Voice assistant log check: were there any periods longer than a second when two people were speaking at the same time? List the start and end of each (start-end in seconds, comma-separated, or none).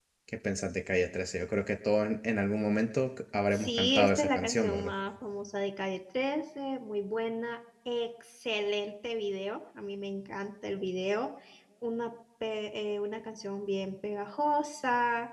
3.5-4.9